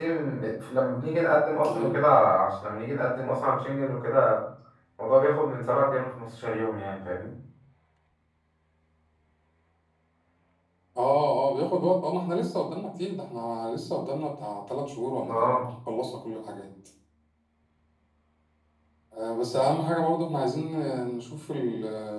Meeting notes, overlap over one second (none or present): none